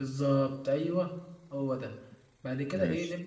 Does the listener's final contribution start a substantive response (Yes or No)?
No